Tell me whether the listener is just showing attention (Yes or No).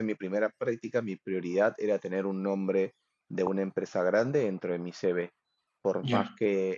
Yes